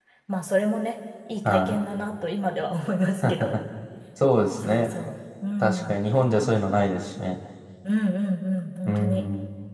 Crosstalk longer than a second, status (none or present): none